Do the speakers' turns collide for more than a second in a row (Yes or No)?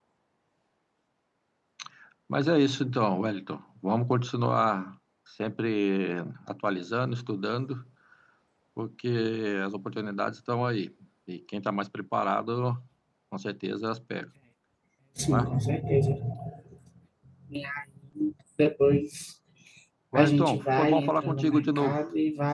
Yes